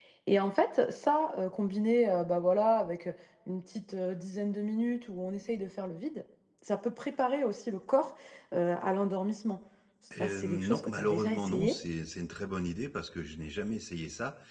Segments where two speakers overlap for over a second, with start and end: 10.2-11.7

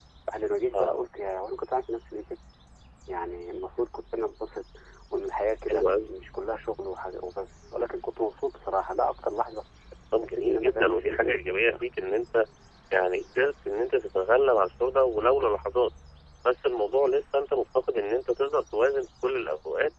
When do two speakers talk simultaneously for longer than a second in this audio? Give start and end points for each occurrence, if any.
10.2-11.8

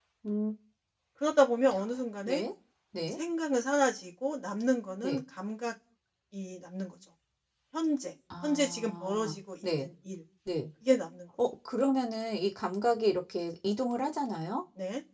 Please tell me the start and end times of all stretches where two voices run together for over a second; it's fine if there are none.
8.4-9.9

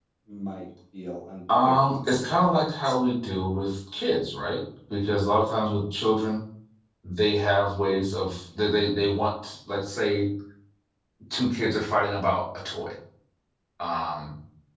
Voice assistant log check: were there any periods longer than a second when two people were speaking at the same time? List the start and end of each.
1.6-2.9

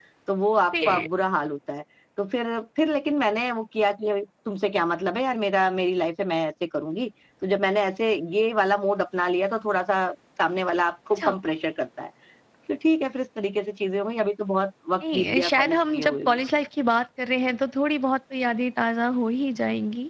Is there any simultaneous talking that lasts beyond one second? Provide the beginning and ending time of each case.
15.0-16.4

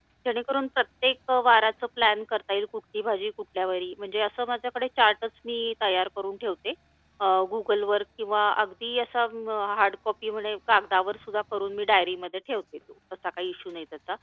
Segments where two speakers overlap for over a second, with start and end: none

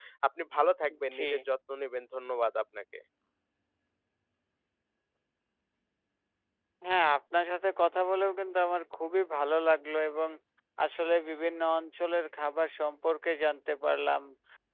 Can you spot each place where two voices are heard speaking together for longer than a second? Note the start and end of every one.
none

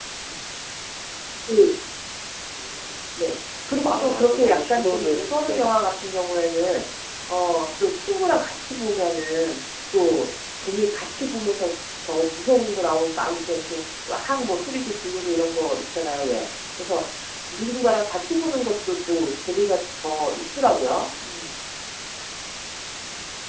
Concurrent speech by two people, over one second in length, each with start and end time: 3.8-5.8

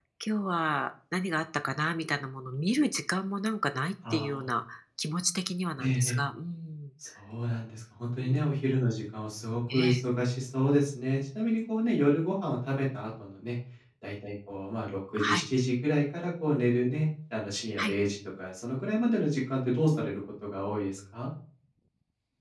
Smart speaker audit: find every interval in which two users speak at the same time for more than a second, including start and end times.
none

